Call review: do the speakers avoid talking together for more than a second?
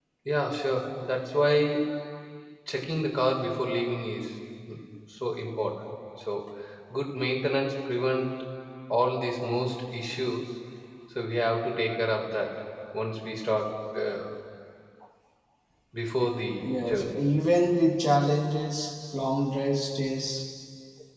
Yes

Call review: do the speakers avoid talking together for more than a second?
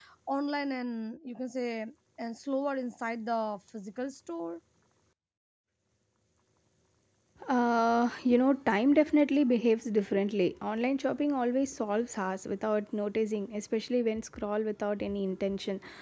Yes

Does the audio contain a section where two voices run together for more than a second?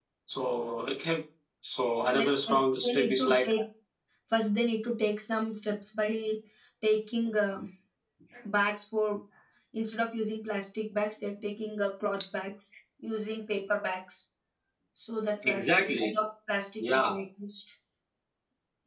Yes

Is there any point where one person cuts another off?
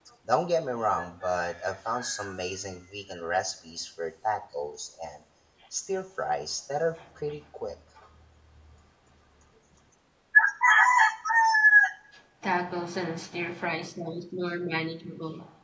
No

